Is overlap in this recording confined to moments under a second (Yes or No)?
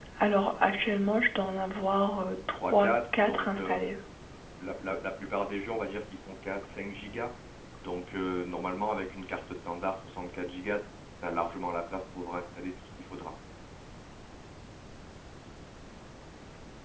No